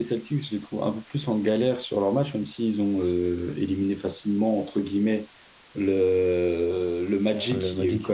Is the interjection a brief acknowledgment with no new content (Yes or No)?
Yes